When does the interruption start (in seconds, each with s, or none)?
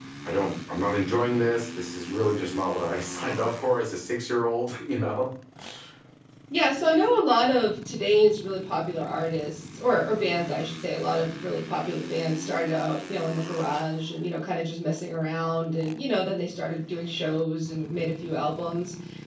none